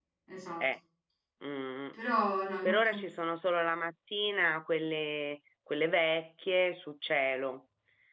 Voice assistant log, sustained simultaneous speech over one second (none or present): none